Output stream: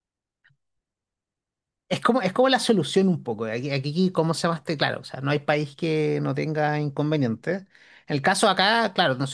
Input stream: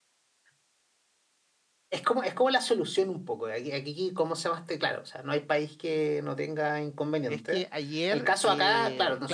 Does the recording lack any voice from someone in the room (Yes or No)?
No